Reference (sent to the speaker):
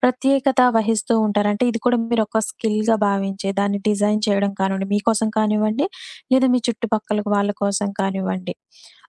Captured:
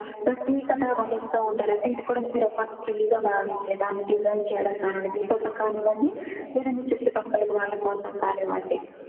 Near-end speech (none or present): none